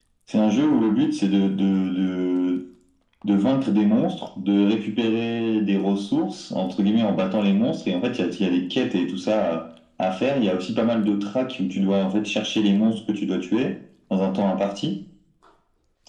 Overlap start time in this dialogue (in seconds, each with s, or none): none